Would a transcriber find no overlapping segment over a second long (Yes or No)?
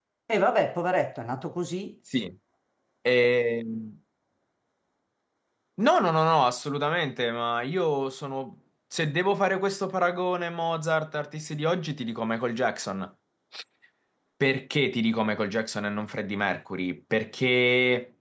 Yes